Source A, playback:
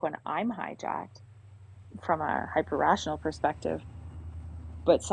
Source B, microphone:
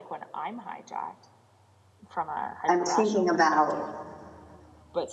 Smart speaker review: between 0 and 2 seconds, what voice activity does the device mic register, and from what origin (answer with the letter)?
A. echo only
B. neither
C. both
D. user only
A